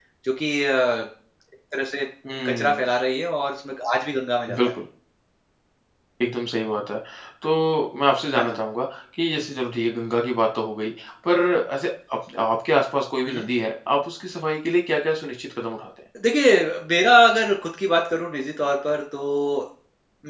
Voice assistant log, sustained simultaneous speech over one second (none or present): none